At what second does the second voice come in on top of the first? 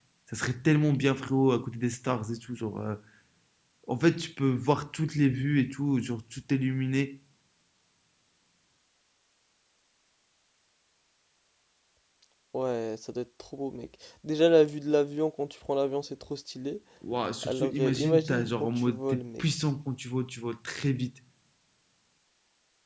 17.4 s

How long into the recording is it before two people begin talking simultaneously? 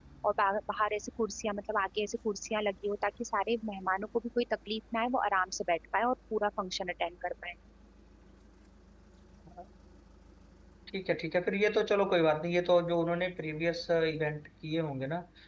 none

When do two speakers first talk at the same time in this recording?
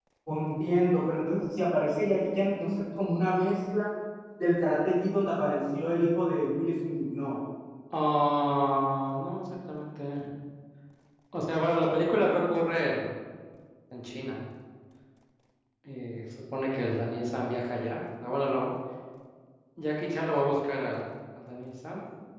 none

